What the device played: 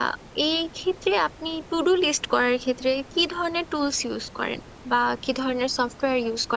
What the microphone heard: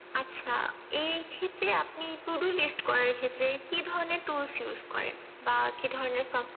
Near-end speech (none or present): none